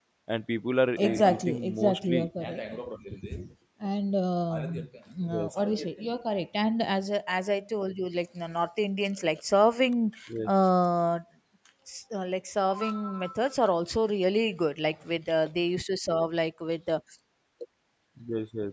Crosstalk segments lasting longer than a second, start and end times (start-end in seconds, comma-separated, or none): 1.0-2.3